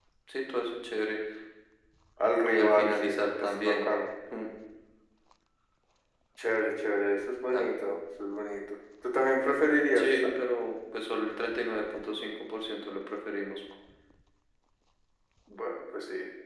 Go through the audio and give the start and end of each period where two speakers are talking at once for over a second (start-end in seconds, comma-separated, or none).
2.5-3.9